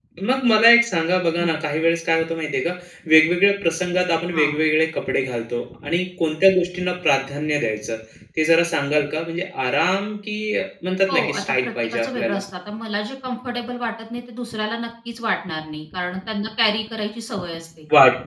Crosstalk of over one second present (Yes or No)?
Yes